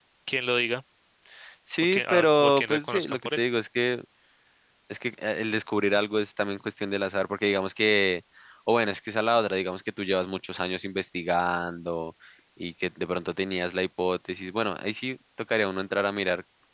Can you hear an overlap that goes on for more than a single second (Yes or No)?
Yes